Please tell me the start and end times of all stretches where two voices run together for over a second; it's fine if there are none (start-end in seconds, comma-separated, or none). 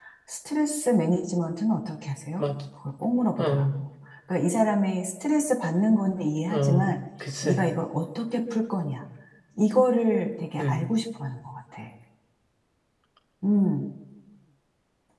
none